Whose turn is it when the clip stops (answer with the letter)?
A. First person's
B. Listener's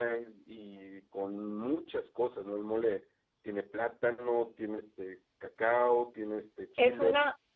B